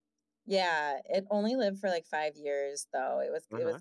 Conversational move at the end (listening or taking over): listening